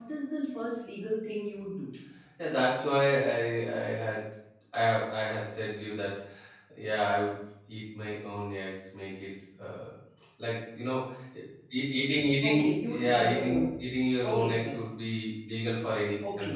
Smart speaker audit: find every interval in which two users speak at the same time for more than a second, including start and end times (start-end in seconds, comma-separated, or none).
12.4-13.7